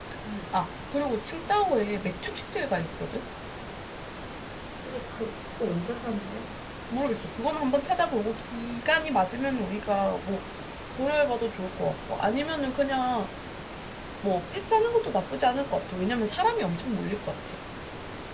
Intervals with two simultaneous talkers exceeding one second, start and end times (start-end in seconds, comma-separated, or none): none